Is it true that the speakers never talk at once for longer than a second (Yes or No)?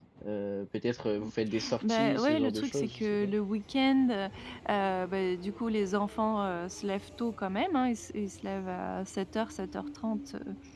No